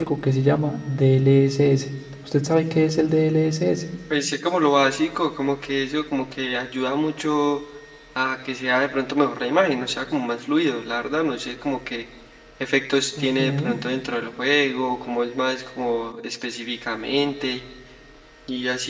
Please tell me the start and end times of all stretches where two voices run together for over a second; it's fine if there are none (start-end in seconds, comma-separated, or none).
none